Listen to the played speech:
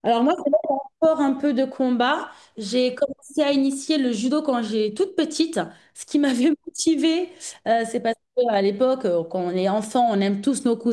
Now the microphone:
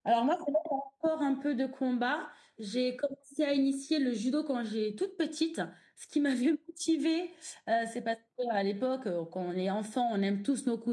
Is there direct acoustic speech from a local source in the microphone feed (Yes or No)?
No